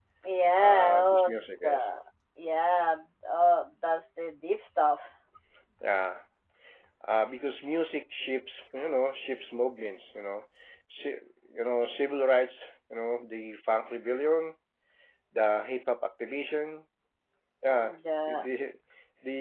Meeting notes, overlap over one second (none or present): present